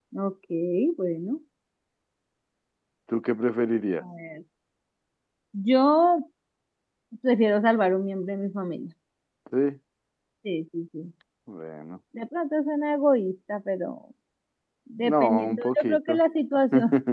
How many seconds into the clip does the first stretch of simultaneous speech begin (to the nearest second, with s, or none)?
15 s